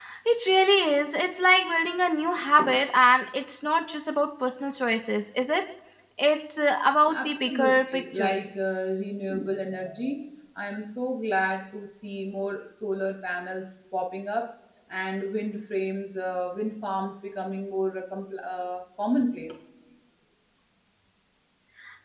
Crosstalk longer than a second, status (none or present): present